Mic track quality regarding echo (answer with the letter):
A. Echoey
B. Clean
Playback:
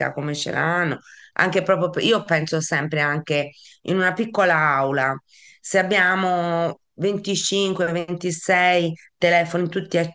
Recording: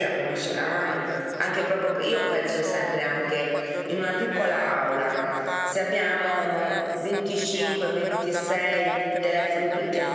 A